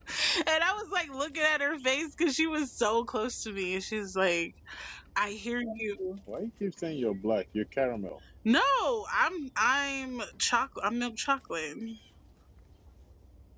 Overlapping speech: No

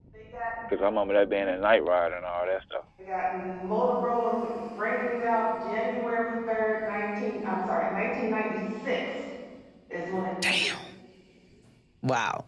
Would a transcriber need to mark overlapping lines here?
No

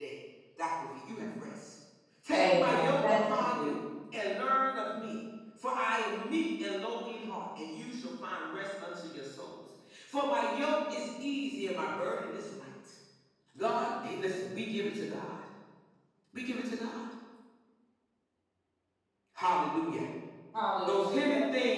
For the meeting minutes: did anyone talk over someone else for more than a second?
Yes, from 2.3 s

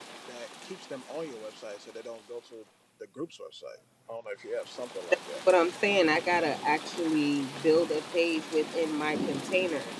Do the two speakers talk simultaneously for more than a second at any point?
No

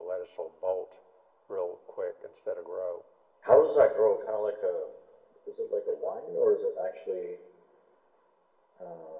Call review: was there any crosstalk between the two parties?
No

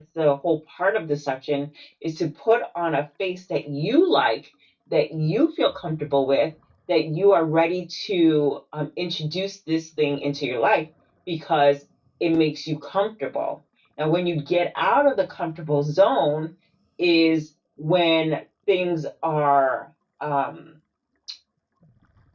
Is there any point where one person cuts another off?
No

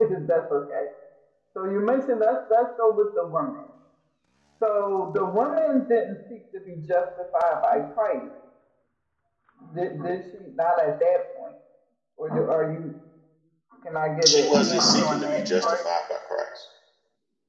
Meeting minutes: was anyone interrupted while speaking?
Yes, from 14.2 s

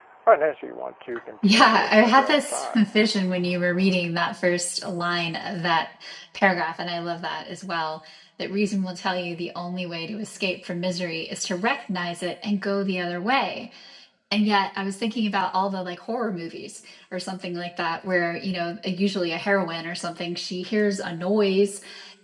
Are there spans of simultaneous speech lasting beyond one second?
Yes, from 1.4 s

